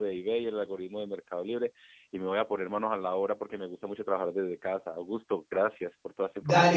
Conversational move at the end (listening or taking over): taking over